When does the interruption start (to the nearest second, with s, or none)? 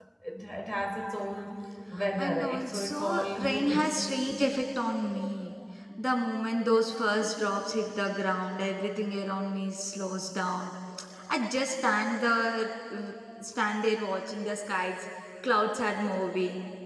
2 s